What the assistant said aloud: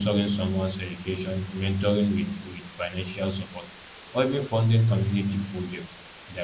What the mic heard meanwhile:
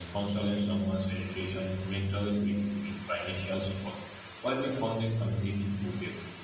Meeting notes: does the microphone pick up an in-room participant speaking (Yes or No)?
No